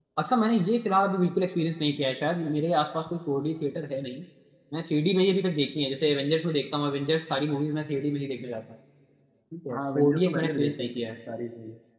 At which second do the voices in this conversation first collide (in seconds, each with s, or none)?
9.7 s